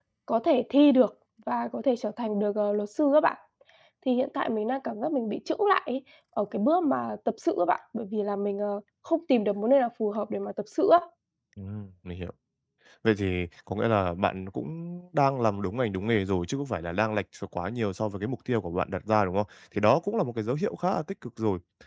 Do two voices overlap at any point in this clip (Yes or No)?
No